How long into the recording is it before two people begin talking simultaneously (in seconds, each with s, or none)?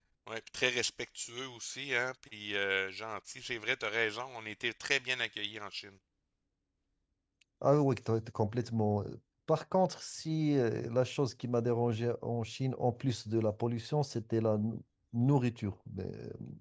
none